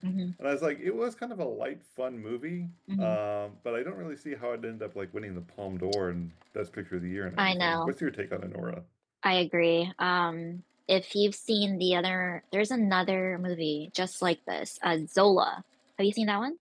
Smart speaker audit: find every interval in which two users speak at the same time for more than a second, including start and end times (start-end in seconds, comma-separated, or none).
none